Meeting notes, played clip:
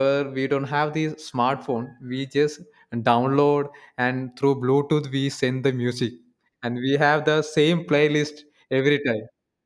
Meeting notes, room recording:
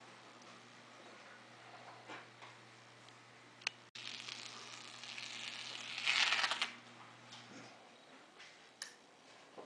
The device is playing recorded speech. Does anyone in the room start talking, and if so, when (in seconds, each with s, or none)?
none